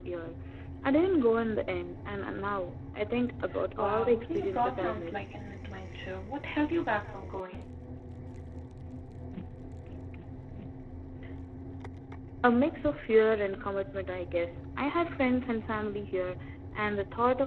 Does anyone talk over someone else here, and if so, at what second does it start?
4 s

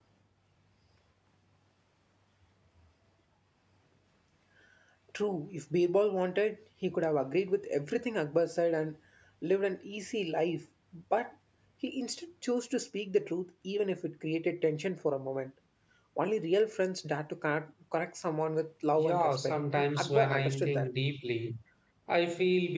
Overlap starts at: 19 s

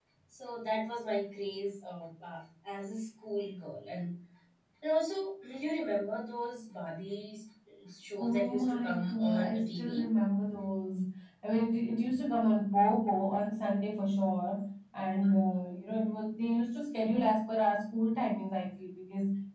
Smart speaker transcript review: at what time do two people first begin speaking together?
8 s

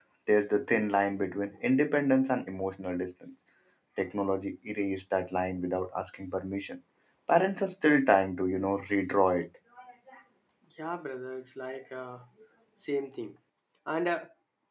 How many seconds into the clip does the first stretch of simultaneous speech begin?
none

